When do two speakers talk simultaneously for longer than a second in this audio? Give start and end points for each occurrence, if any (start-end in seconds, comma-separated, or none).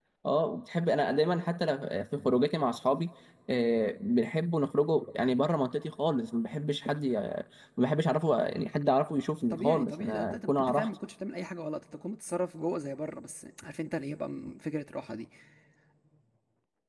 9.5-10.9